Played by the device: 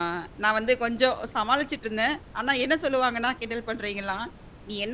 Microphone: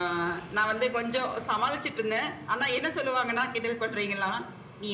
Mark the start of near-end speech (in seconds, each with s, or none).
none